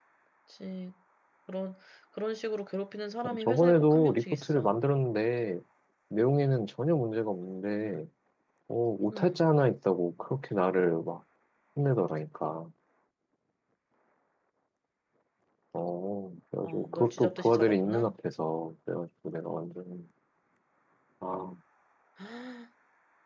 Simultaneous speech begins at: 3.2 s

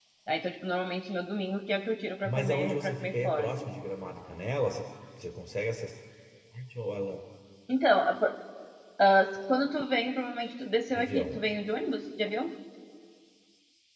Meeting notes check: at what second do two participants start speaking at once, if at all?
2.2 s

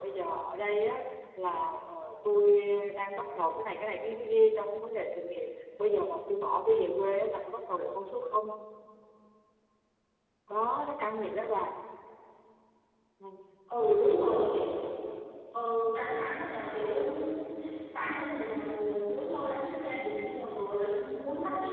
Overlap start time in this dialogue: none

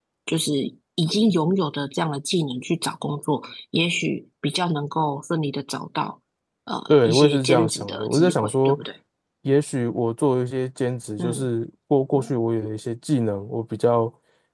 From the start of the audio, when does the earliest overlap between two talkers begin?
6.9 s

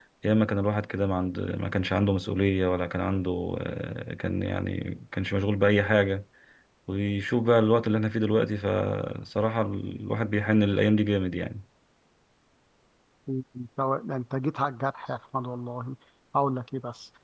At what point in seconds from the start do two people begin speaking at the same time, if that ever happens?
none

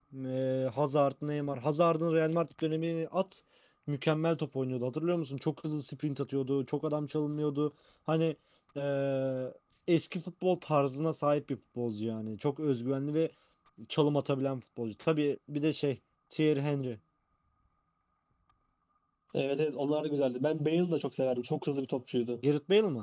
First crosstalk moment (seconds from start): none

